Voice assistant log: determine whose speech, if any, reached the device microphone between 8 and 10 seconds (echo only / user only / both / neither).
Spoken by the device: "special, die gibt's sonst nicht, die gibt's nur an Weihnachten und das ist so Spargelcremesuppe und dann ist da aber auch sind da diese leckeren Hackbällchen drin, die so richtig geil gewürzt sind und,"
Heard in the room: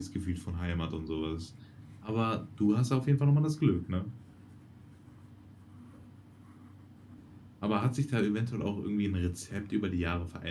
user only